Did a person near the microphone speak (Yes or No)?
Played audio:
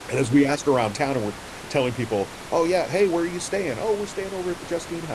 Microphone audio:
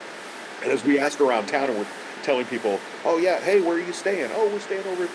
Yes